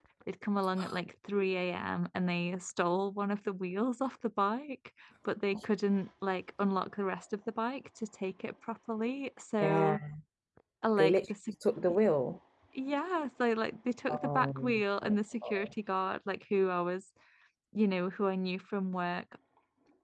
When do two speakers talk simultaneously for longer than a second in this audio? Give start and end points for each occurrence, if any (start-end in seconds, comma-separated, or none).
14.1-15.7